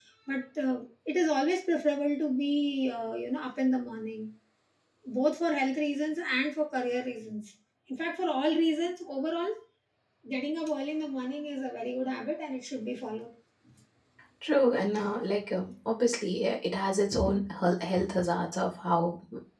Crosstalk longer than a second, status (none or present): none